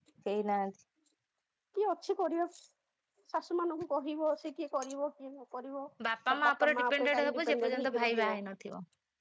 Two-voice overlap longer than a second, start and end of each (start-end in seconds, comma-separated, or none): 6.3-8.4